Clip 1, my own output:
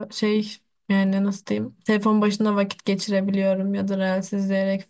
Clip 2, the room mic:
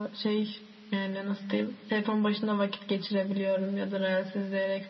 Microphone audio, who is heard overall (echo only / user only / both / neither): echo only